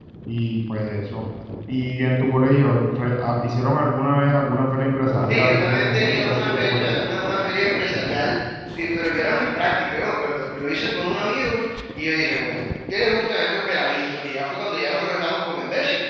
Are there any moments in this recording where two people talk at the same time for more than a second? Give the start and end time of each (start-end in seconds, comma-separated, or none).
5.3-7.0